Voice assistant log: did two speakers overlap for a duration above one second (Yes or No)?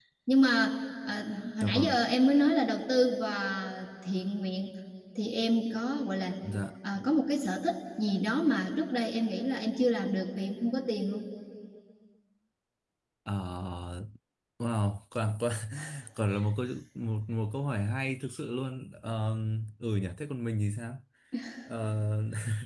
No